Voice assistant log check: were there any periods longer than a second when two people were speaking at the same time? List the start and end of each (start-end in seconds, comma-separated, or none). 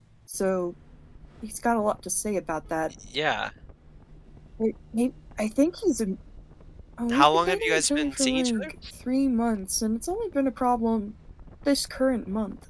7.1-8.7